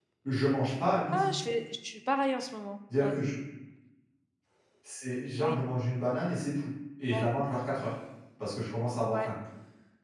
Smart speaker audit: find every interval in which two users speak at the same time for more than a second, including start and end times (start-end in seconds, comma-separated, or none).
none